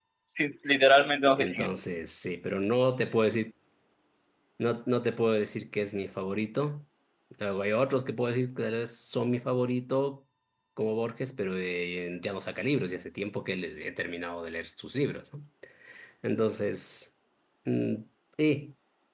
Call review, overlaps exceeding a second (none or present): none